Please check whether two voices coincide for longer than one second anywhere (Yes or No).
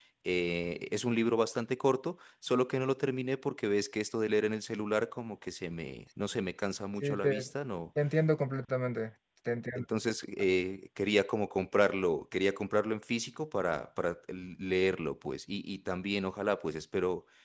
No